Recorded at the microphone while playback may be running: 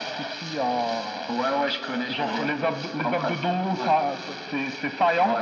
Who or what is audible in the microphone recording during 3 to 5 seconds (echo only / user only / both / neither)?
echo only